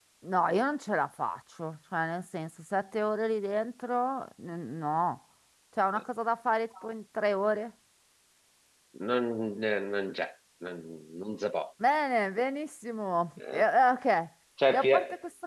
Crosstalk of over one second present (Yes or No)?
No